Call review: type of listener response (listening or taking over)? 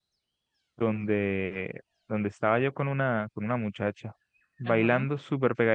listening